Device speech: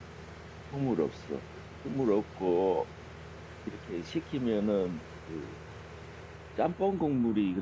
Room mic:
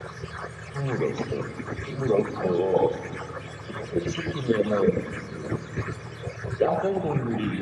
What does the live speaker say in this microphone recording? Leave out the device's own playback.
none

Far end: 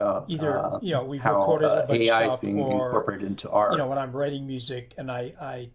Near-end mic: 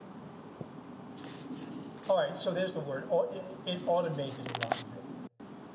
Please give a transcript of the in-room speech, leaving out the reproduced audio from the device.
All right. So there's the word. it automated a lot of it.

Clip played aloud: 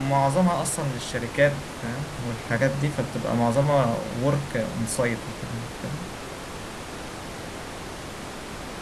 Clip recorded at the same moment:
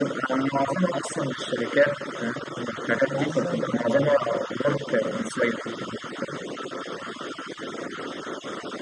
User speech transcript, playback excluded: عايز ازود الدخل برضه

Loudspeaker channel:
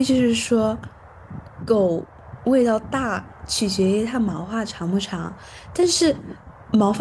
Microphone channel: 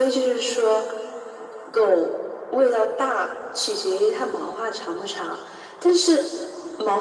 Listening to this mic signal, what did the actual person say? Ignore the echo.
none

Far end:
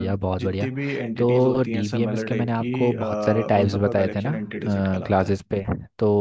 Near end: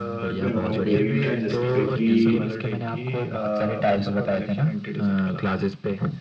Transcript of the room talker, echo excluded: वेरिएंट है जिसपे कि

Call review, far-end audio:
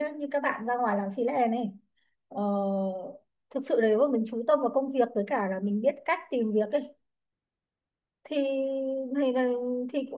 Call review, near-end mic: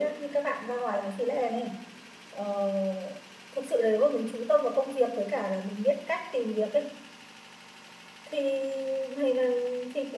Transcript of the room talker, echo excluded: none

